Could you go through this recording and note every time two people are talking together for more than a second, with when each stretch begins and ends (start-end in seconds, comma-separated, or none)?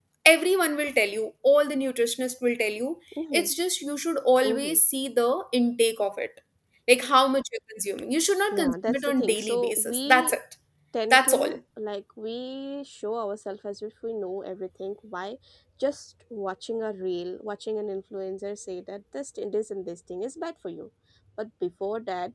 8.5-10.3